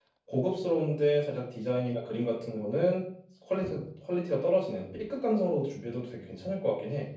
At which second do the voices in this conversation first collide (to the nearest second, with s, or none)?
none